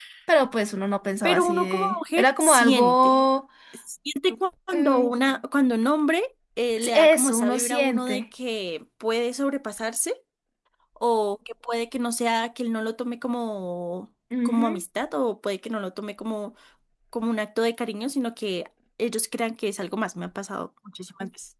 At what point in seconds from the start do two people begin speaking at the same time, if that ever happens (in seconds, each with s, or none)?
1.2 s